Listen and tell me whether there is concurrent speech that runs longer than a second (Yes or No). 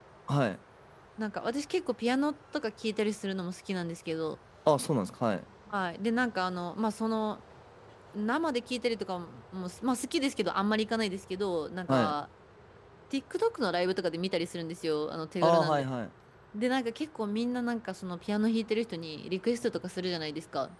No